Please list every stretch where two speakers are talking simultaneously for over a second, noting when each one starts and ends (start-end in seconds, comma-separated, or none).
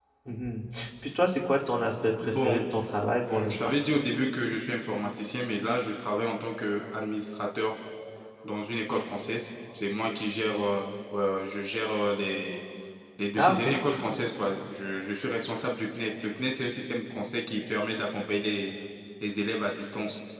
none